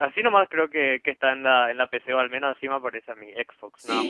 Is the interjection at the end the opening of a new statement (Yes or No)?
Yes